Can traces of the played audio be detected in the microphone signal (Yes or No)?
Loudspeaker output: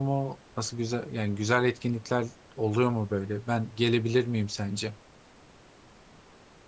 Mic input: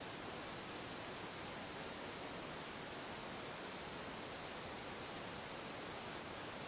No